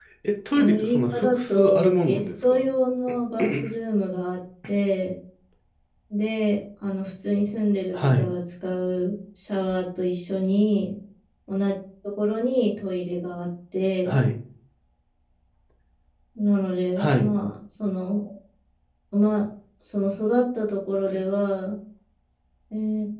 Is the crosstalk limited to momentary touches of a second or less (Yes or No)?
No